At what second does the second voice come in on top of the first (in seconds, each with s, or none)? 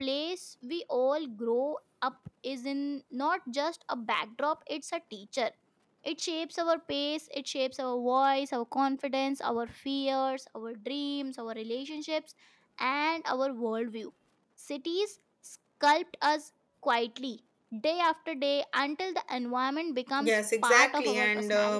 20.2 s